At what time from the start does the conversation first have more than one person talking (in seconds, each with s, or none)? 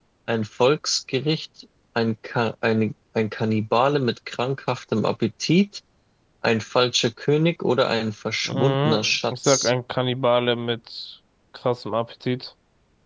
8.5 s